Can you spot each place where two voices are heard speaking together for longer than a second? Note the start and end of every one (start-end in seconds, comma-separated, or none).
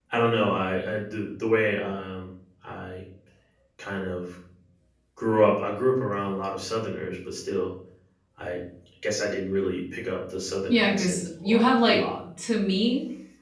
10.7-12.2